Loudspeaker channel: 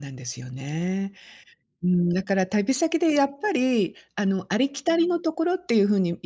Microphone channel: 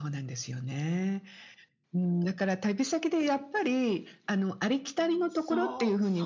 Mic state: both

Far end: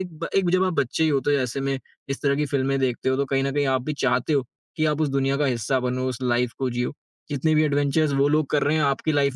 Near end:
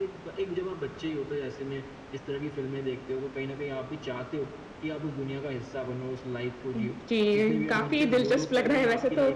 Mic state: both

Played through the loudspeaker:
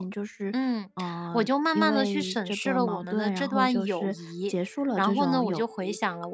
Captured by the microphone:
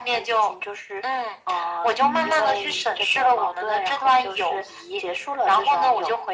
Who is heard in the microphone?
both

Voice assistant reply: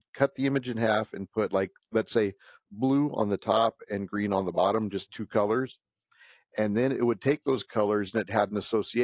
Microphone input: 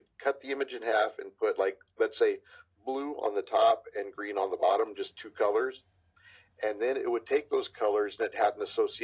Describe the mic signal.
echo only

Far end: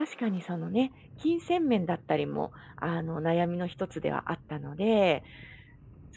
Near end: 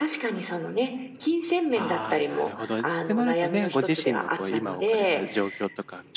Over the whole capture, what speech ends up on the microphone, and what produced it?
both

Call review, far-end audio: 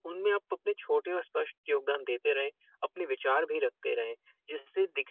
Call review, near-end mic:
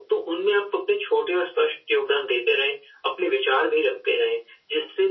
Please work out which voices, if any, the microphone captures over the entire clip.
echo only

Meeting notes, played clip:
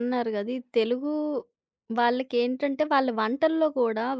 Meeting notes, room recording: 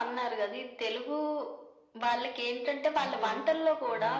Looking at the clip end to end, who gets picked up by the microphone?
both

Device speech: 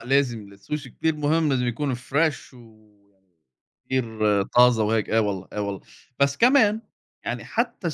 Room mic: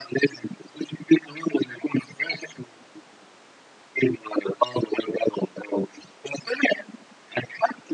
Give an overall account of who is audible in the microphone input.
echo only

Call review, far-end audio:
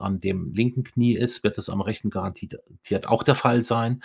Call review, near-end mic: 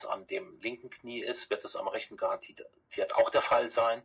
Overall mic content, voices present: echo only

